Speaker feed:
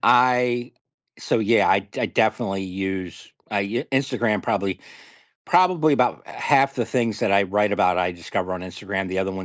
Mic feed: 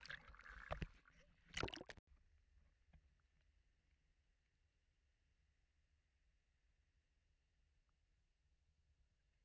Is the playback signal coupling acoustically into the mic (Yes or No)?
No